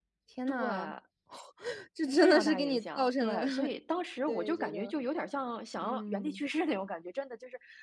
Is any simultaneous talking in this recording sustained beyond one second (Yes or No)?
Yes